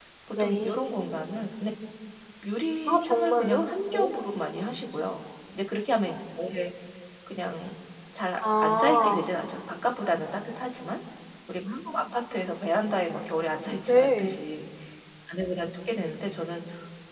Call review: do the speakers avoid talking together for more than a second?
No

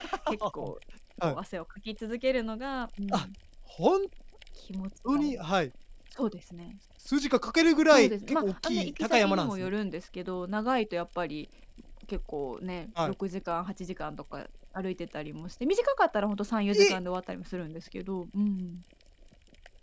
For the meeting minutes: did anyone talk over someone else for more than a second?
Yes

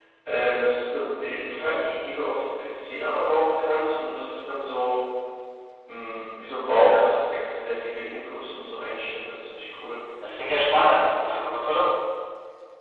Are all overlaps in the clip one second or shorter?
Yes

